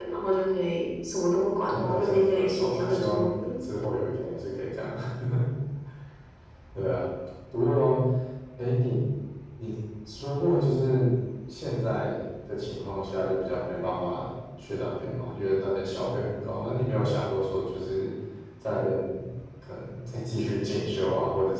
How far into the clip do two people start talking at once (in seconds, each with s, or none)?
1.7 s